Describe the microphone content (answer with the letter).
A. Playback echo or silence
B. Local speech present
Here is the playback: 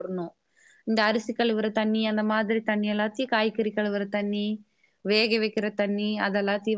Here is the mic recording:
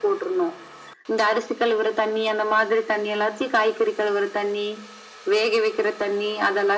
A